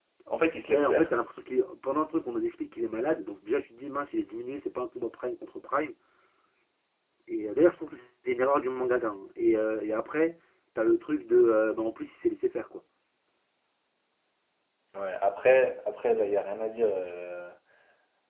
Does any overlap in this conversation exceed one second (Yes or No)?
No